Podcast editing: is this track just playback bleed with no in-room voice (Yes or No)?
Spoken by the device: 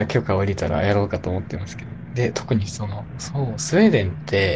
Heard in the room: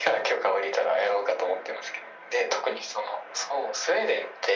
Yes